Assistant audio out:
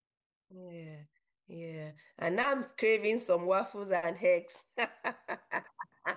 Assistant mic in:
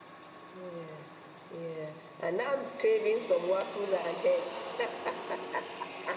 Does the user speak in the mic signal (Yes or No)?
No